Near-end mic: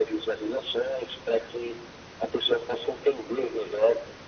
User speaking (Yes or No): No